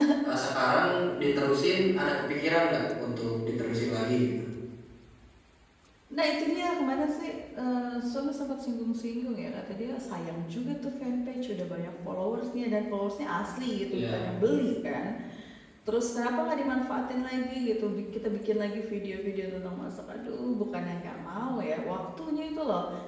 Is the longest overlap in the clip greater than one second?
No

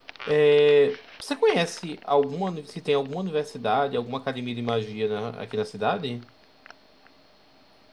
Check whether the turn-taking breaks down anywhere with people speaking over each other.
No

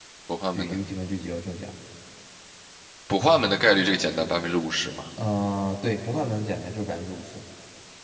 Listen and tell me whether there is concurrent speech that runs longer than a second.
No

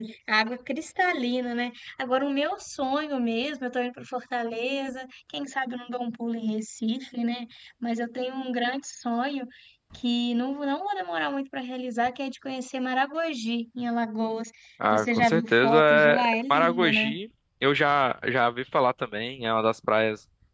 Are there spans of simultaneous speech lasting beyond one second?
Yes, from 14.9 s

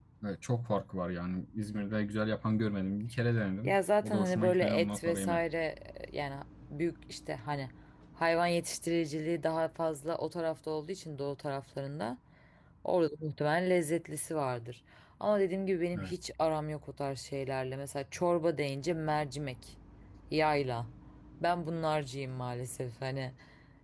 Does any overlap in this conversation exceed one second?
Yes, from 3.6 s

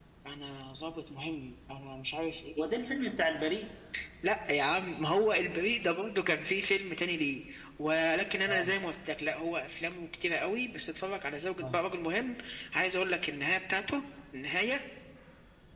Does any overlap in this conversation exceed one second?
No

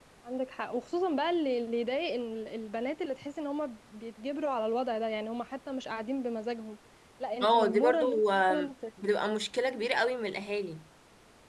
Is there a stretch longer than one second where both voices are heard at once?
Yes, from 7.4 s

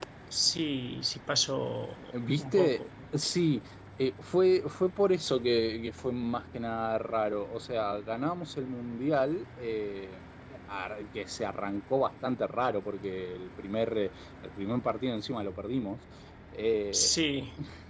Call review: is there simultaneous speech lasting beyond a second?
No

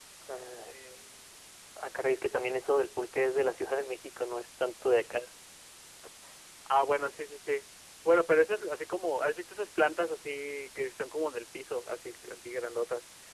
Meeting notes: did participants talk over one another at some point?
No

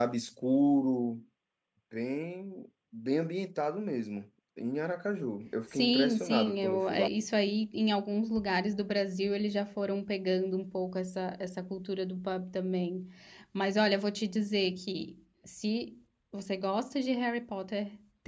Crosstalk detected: Yes, from 5.7 s

